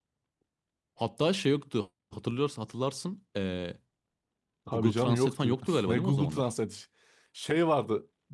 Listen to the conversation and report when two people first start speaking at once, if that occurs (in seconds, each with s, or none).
4.7 s